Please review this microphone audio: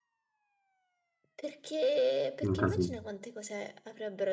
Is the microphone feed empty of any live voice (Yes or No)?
No